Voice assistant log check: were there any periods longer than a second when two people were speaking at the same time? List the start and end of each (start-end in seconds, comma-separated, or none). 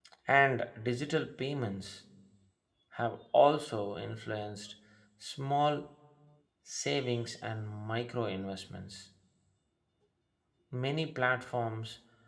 none